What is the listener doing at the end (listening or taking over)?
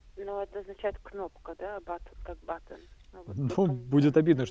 taking over